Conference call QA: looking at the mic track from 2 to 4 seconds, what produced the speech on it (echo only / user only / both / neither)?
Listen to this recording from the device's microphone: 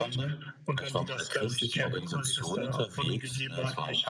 echo only